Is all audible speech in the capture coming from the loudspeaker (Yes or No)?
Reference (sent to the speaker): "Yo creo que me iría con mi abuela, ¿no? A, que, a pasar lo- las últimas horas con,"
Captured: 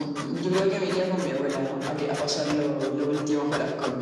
Yes